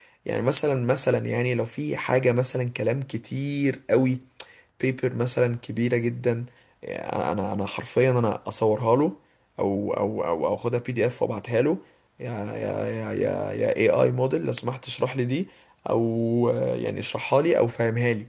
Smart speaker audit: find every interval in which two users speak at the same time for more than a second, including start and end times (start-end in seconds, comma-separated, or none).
none